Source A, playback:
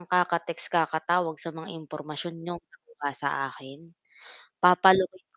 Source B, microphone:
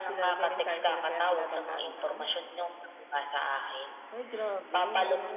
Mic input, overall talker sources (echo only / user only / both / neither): both